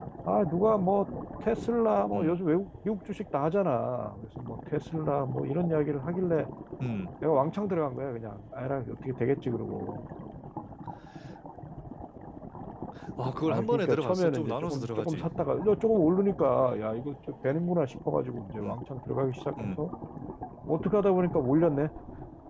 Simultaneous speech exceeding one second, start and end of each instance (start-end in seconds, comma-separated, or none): 13.5-15.3